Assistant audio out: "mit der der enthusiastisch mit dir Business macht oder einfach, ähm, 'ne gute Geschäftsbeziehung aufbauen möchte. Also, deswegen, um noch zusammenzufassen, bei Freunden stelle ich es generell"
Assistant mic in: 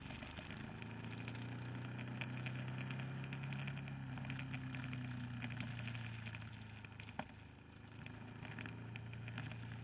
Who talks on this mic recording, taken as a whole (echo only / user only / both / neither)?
neither